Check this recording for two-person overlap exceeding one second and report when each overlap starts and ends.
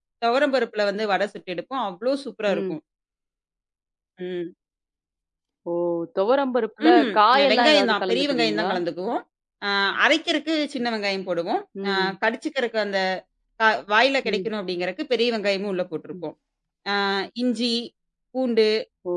6.9-8.7

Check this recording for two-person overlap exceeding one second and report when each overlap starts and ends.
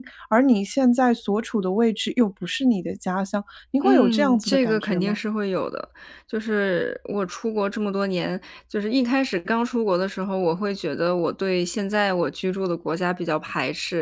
3.8-5.2

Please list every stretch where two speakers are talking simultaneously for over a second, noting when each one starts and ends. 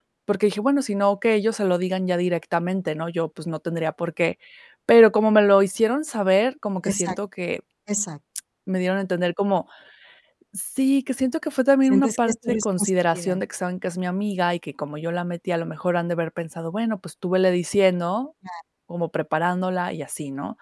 11.8-13.4

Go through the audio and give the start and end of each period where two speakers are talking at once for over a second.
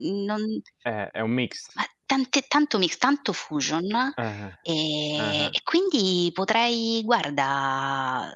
none

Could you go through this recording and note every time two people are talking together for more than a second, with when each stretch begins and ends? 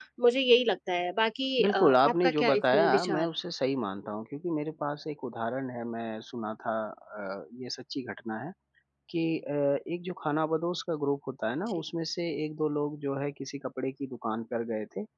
1.6-3.2

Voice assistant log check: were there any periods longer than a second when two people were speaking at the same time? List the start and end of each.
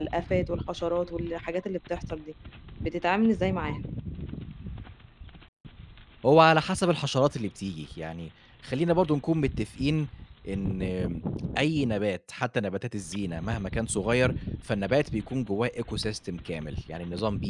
none

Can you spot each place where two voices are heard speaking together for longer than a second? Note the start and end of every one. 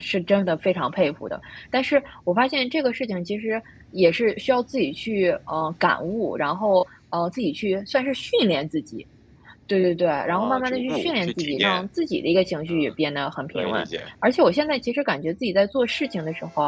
10.2-11.8

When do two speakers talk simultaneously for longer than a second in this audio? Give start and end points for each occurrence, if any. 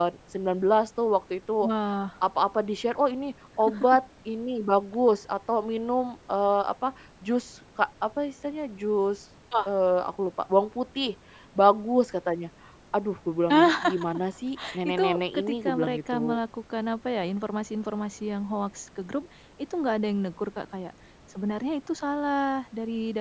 14.9-16.4

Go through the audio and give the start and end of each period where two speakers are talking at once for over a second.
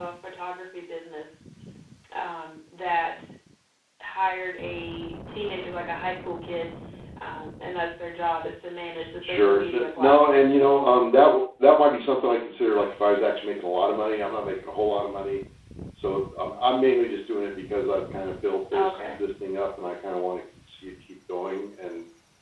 9.2-10.7

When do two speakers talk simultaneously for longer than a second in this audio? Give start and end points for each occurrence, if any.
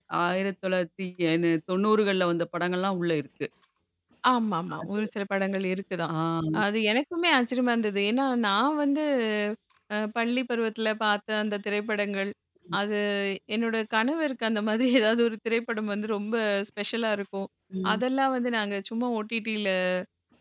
none

